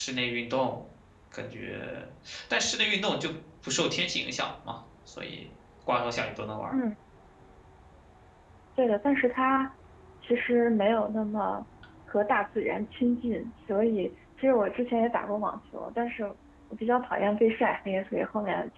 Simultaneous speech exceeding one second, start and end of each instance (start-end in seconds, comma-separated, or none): none